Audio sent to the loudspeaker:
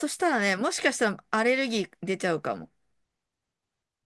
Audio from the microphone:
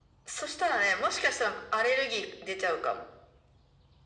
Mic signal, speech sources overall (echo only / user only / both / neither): echo only